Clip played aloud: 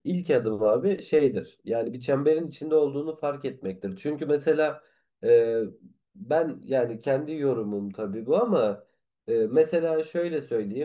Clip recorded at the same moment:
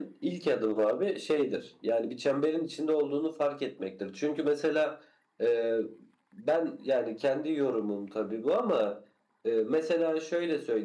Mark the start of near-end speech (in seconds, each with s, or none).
none